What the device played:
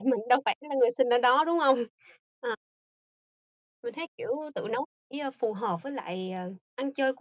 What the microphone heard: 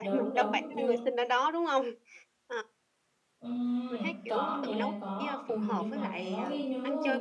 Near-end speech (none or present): present